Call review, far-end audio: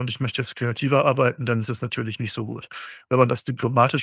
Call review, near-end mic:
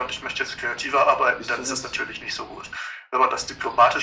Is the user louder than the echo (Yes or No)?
No